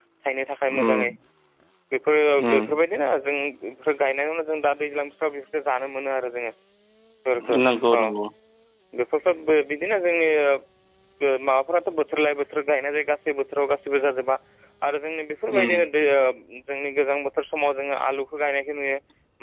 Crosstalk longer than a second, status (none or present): none